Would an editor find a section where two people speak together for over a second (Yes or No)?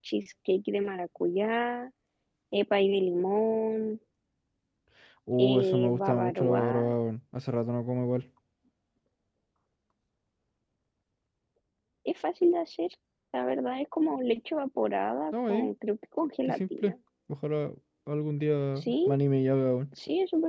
Yes